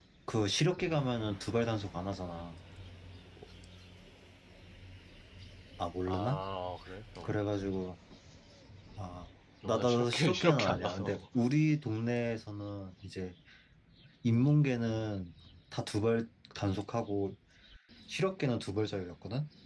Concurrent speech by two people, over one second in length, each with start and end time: 9.6-11.1

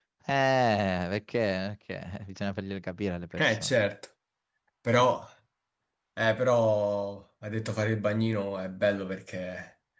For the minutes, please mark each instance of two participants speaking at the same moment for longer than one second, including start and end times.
none

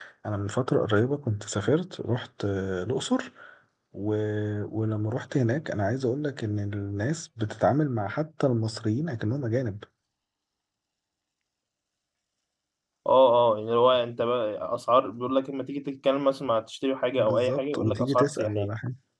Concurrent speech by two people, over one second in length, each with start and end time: 17.2-18.7

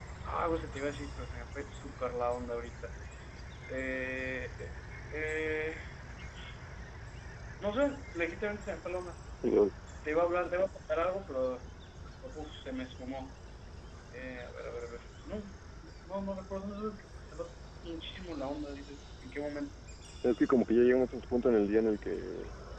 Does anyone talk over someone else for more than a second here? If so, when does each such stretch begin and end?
none

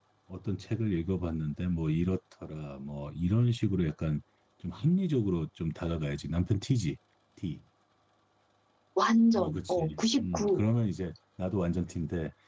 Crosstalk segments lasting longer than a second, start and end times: 9.3-10.6

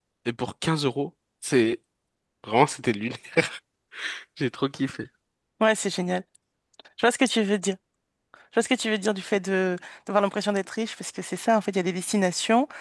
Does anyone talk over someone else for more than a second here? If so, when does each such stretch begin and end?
none

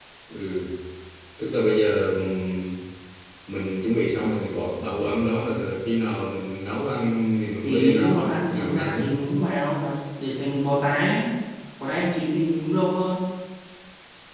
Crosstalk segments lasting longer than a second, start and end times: 7.6-9.1

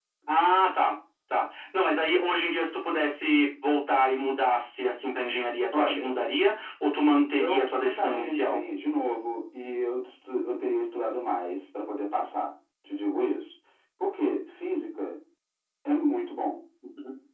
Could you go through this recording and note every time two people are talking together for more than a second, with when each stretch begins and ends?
7.4-8.6

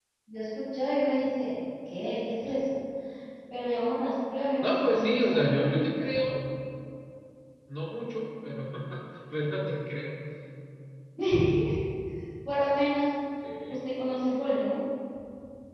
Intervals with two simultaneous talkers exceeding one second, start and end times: 4.6-5.8

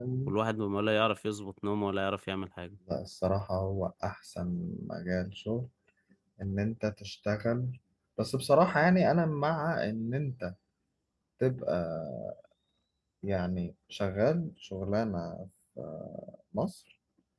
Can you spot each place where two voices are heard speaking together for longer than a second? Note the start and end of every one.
none

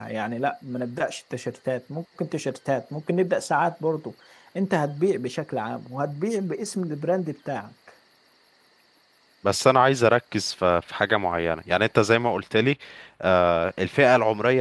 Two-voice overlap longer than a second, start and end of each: none

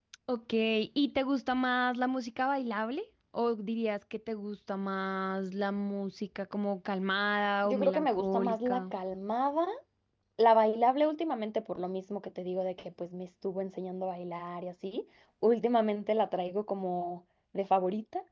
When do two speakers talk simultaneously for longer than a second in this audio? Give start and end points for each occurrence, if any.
7.7-8.9

